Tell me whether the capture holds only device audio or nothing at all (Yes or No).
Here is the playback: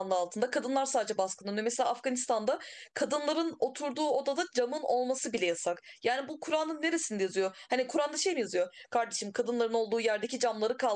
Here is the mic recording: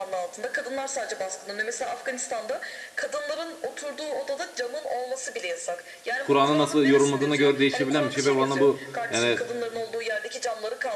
No